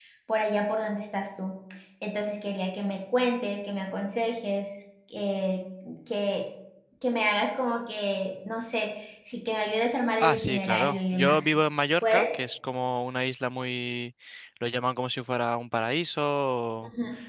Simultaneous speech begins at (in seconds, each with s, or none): 10.2 s